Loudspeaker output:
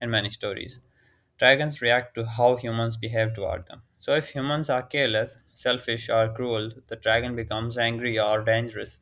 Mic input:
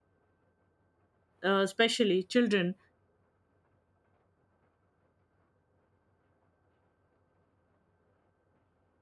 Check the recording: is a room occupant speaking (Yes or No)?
Yes